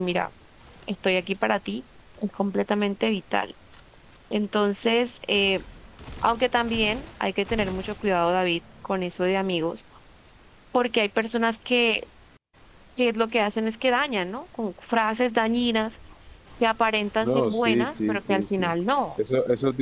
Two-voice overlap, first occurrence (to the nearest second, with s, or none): 17 s